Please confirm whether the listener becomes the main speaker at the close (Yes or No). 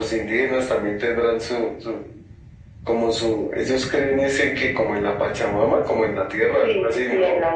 Yes